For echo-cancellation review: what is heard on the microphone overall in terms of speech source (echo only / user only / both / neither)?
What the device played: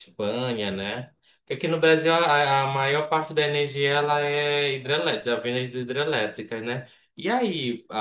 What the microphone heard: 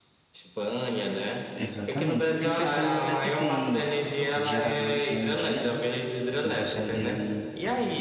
both